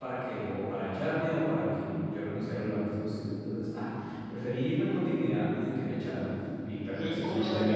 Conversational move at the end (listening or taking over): taking over